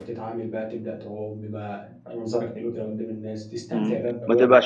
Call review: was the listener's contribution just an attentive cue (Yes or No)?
No